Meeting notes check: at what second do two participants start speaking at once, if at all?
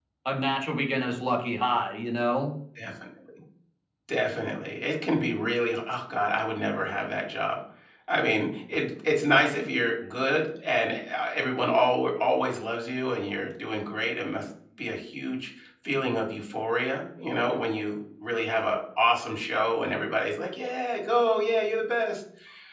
none

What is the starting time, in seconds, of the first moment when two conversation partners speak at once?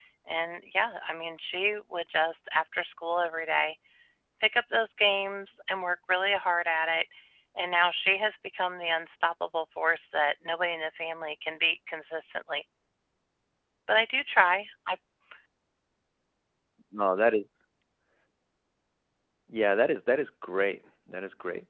none

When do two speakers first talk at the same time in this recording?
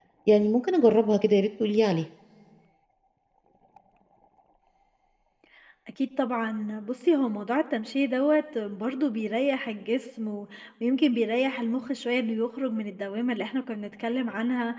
none

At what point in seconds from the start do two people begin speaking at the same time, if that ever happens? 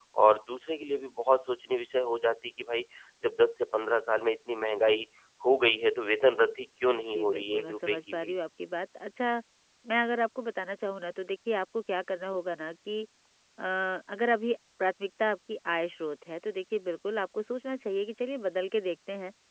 6.9 s

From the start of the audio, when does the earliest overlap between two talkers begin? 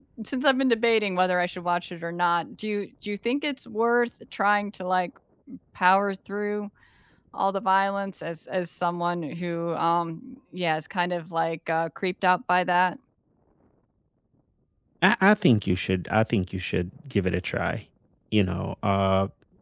none

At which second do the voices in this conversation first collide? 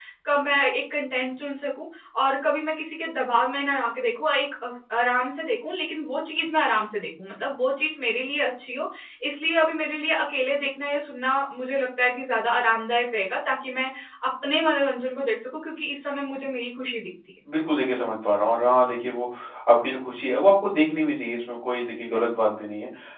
none

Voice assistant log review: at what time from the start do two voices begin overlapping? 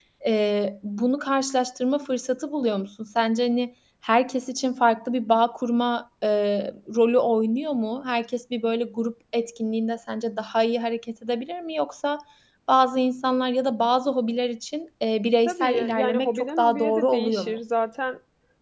15.4 s

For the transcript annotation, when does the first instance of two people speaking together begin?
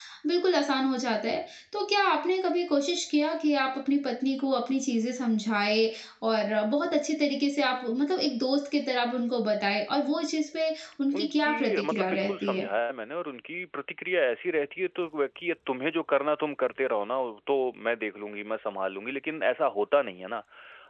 11.1 s

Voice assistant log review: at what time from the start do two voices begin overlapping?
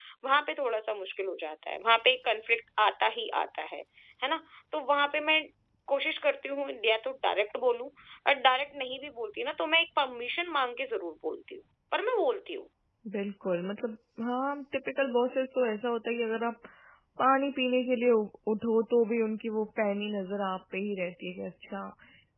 none

